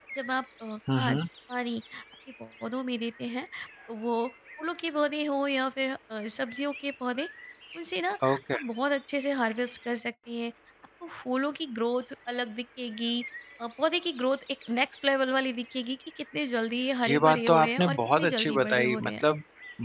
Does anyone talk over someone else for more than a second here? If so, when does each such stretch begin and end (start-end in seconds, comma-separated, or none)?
17.1-19.2